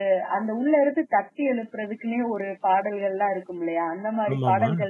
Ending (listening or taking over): listening